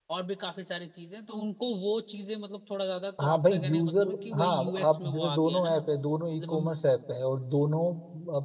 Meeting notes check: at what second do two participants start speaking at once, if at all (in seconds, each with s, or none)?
3.2 s